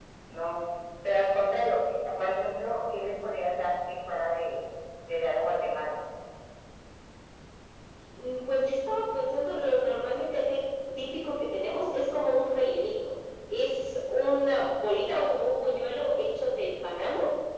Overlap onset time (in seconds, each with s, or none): none